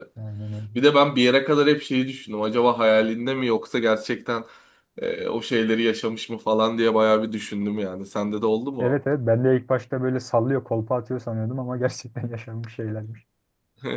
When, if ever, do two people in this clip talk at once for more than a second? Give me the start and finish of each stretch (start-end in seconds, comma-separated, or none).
none